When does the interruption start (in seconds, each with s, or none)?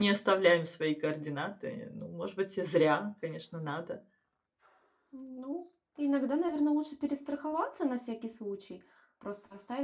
none